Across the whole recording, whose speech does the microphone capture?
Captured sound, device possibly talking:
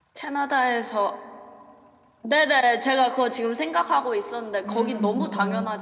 both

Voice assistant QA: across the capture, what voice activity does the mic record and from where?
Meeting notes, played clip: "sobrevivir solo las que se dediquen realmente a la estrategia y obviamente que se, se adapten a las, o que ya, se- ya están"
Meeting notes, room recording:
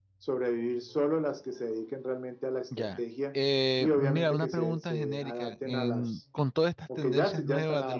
both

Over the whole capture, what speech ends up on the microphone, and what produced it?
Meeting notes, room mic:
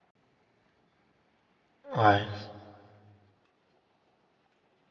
user only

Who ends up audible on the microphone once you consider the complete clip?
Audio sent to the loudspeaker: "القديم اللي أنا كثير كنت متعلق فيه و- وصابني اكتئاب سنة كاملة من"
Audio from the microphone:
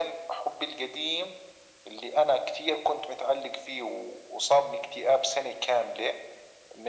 echo only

